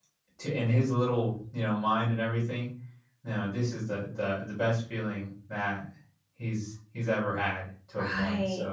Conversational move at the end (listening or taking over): taking over